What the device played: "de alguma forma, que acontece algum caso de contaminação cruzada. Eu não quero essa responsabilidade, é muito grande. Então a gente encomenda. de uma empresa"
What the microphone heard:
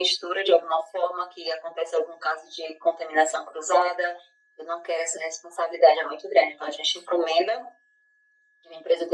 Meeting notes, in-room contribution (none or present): none